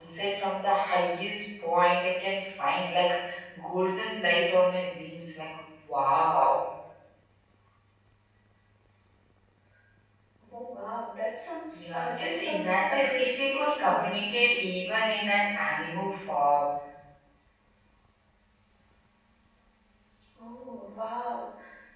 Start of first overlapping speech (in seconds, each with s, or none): 11.9 s